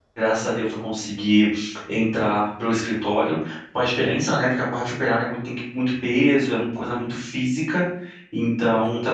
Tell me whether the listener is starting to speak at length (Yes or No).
Yes